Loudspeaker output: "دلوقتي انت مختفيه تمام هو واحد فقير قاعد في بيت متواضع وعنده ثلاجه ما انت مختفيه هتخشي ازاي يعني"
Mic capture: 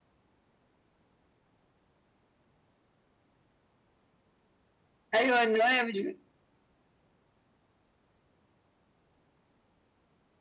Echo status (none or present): none